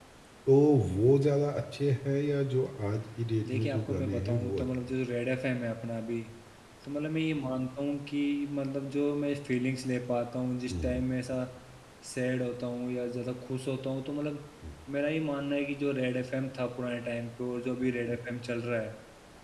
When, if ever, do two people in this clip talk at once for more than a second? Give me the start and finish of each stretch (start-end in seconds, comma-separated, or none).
3.5-4.7